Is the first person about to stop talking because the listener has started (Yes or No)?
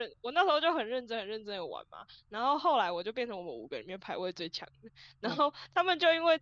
No